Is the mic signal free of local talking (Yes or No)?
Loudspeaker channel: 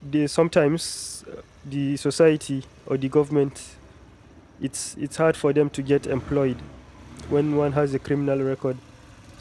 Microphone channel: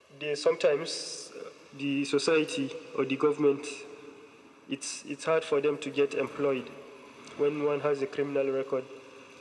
Yes